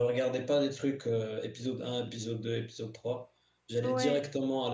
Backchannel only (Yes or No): Yes